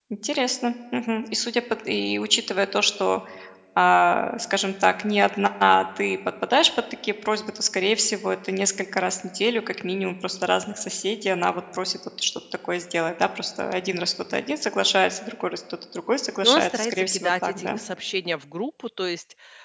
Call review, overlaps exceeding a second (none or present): present